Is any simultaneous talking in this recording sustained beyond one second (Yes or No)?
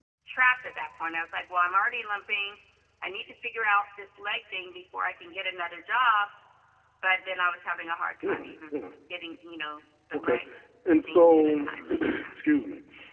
Yes